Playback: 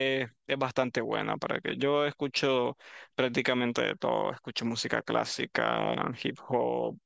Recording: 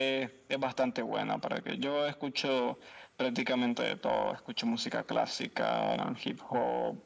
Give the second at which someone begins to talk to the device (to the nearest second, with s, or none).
none